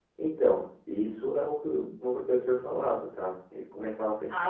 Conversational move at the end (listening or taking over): taking over